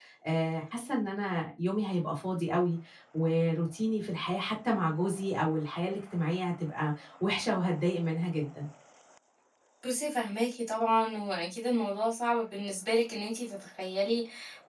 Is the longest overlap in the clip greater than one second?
No

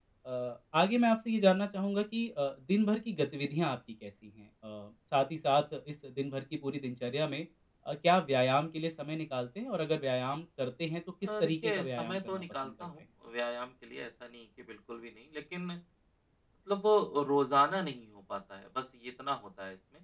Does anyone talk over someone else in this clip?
Yes, from 11.2 s

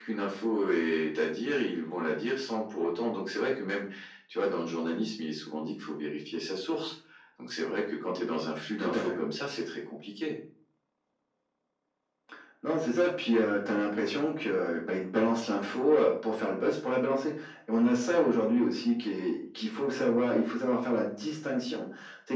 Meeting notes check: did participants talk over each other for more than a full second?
No

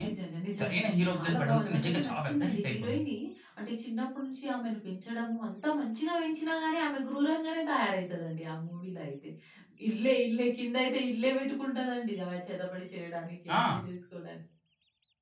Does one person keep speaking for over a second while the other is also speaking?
Yes, from 0.6 s

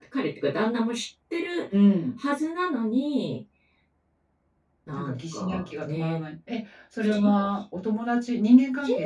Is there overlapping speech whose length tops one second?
Yes, from 5.0 s

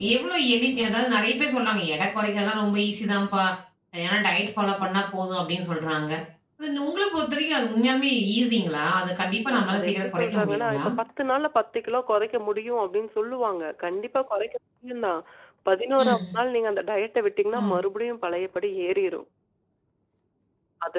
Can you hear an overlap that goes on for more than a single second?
Yes, from 9.4 s

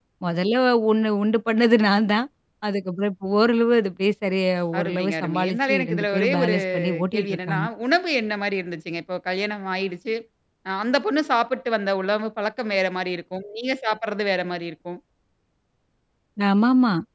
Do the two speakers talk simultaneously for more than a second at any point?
Yes, from 4.7 s

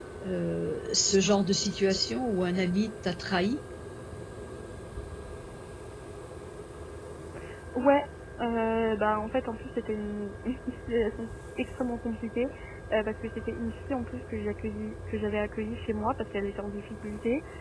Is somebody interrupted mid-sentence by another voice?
No

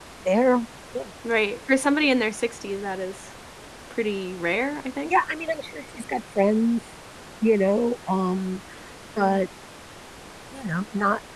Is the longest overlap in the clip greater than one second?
No

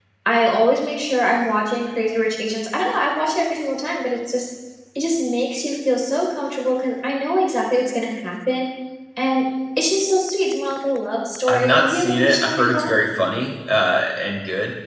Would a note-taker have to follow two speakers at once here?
Yes, from 11.5 s

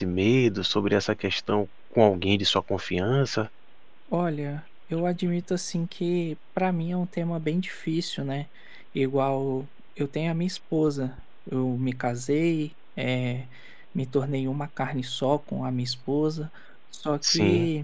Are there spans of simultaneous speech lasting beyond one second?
No

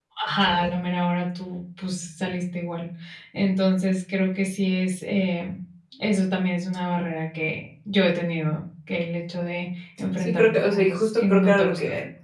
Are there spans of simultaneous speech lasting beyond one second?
Yes, from 10.2 s

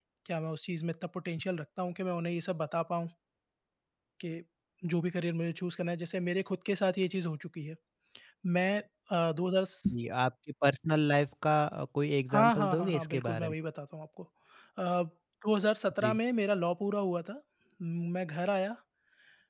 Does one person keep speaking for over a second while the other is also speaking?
Yes, from 12.3 s

